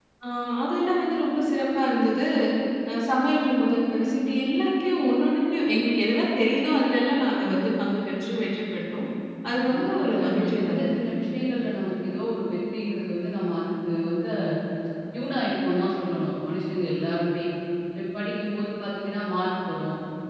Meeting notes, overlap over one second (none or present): present